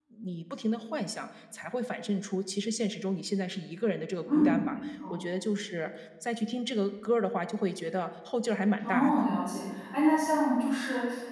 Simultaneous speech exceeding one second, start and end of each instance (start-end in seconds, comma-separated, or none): none